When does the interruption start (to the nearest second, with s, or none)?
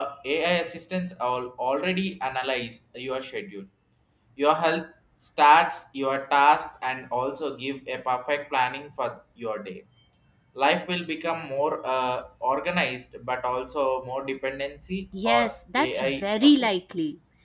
15 s